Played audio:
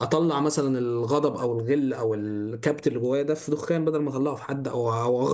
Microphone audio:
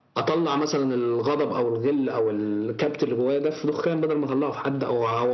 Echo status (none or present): present